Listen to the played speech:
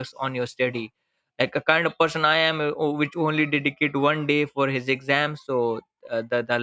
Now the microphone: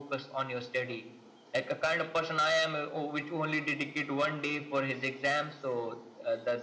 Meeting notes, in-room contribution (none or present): none